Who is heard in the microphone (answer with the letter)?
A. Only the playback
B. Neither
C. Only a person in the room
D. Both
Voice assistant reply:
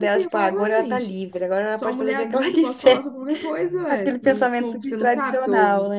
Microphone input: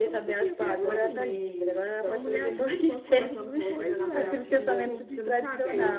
D